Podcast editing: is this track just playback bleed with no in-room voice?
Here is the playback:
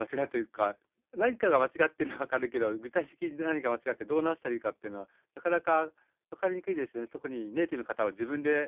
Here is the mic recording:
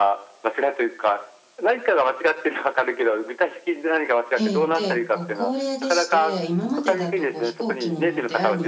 No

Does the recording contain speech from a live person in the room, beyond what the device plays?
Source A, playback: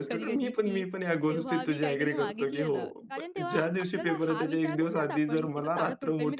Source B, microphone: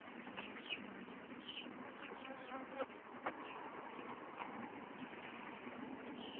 No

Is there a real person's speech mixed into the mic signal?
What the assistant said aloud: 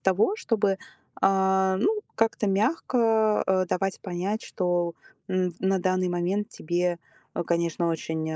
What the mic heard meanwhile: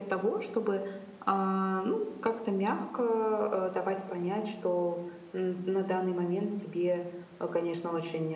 No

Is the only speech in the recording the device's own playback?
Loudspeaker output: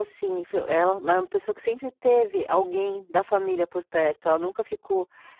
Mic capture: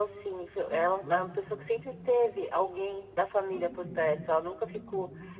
No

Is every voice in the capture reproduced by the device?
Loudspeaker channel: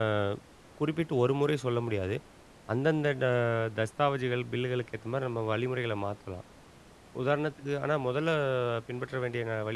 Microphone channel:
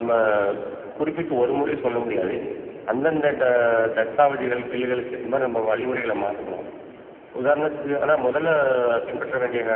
No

